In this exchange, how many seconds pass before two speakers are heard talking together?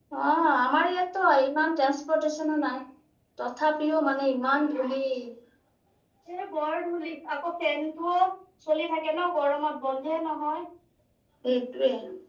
none

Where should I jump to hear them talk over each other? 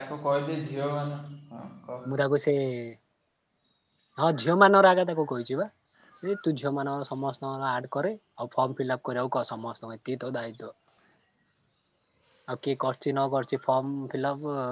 none

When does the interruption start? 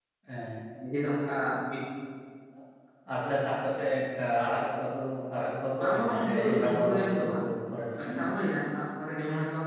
5.8 s

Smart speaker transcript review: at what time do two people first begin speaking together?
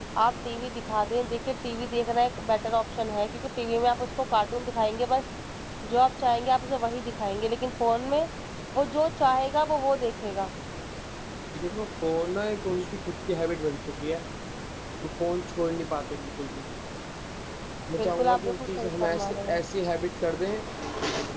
18.0 s

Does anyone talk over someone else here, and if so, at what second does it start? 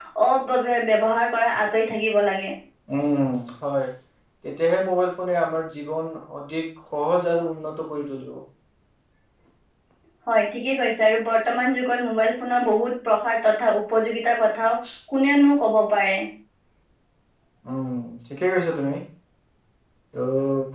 none

